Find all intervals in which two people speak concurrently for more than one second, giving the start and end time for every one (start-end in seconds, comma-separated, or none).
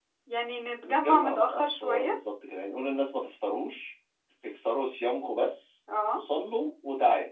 0.8-2.1